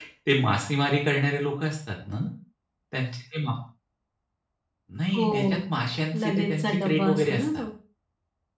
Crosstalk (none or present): present